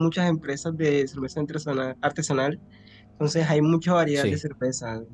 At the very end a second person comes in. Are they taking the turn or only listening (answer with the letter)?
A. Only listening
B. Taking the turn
A